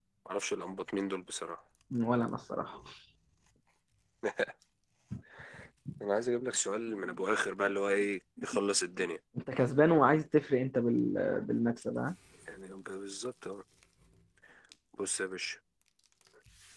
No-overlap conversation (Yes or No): Yes